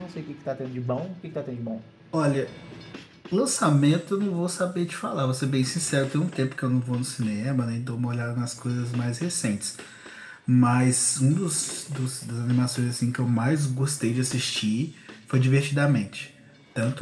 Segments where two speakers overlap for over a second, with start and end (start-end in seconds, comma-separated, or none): none